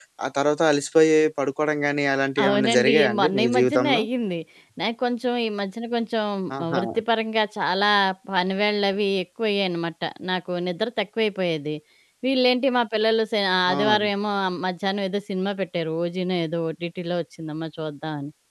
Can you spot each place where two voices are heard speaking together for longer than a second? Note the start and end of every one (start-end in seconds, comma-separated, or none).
2.4-4.0